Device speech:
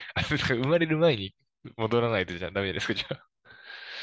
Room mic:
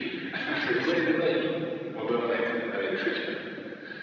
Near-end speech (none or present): present